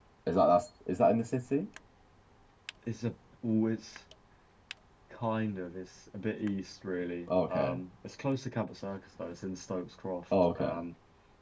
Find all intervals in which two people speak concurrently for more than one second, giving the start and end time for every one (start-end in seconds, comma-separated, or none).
none